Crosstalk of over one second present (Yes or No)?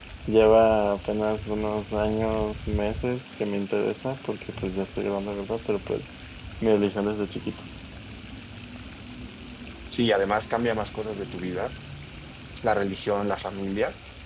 No